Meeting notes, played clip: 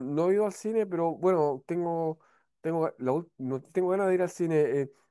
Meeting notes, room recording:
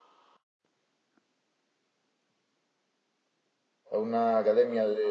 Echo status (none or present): none